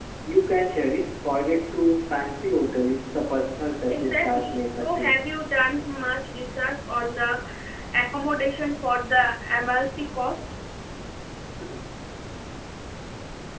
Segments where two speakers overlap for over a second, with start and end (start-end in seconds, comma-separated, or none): 3.9-5.1